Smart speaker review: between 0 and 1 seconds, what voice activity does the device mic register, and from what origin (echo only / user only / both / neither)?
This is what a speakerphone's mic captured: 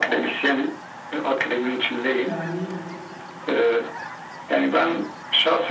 echo only